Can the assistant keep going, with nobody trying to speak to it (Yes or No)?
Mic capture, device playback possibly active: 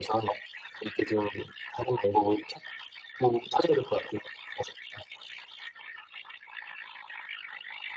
Yes